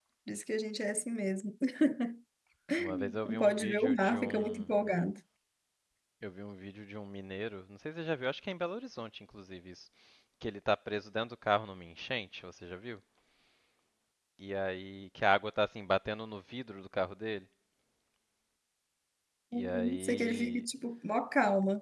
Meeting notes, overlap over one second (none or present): present